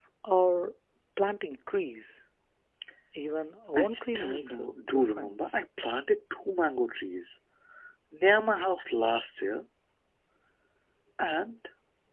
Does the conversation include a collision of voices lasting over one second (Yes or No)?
Yes